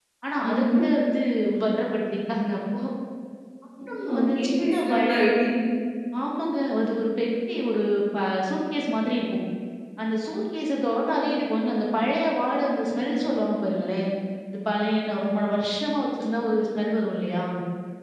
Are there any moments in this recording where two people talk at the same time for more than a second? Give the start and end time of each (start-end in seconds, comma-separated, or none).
4.1-5.4